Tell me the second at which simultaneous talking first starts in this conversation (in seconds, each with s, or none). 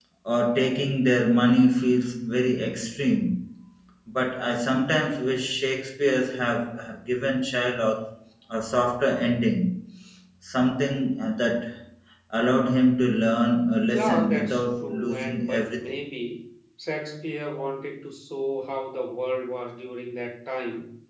13.9 s